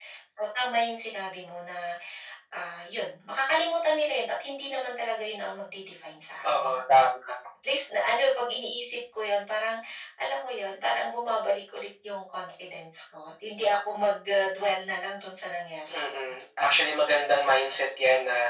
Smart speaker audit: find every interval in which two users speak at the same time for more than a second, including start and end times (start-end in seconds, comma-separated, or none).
none